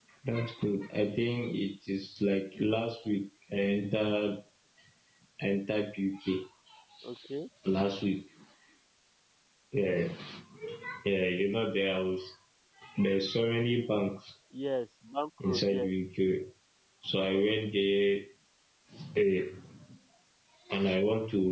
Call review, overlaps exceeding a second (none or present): none